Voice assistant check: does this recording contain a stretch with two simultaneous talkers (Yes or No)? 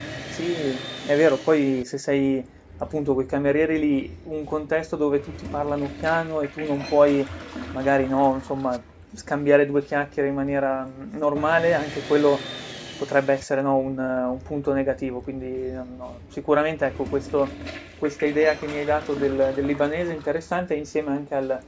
No